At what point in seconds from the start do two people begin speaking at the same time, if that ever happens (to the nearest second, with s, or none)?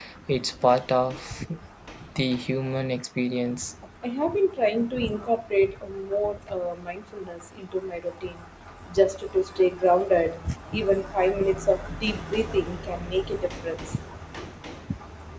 none